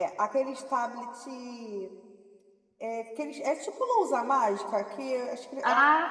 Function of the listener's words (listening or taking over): listening